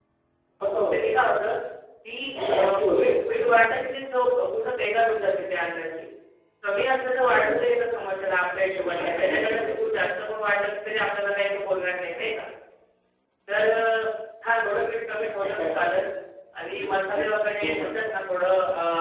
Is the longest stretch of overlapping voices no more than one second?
No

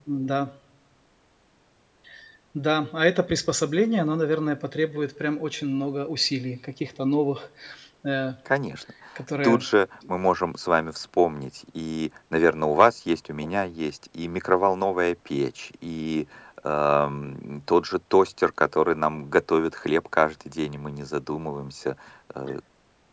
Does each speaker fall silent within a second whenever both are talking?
Yes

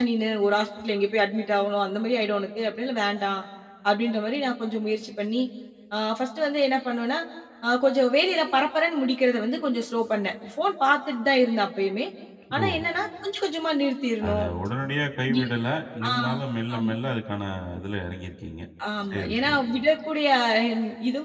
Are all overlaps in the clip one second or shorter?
Yes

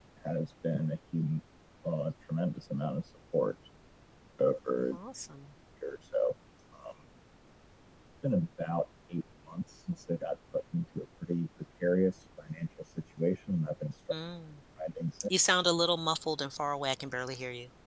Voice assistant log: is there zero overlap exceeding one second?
Yes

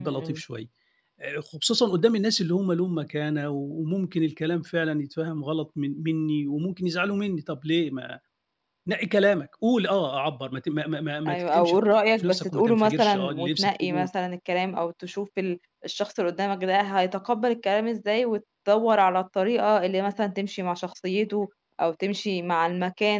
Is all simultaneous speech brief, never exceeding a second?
No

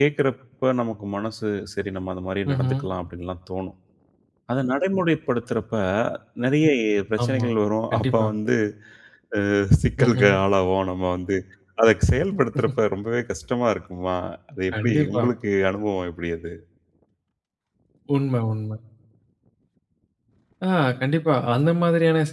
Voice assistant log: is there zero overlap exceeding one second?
Yes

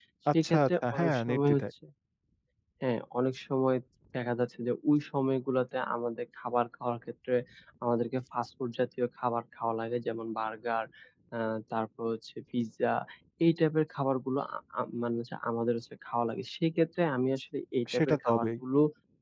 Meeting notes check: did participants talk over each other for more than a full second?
Yes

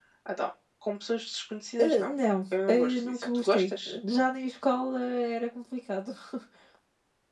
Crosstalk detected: Yes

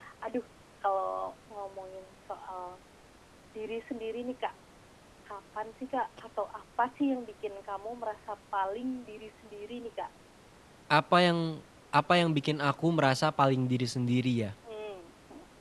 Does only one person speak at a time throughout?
Yes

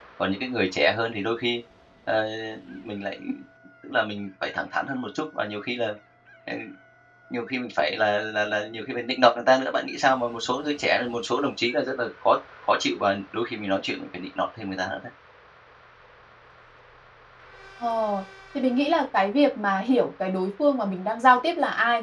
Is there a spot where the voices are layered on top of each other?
No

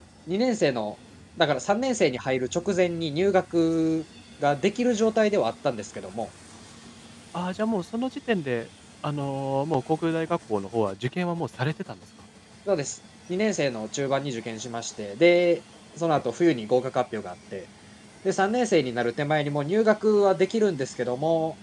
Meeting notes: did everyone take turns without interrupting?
Yes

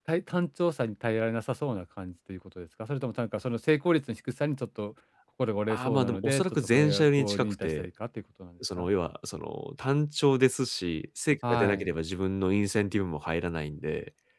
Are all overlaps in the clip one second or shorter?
No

